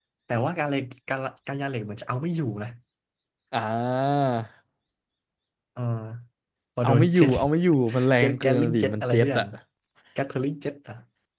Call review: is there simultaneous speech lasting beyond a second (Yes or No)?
Yes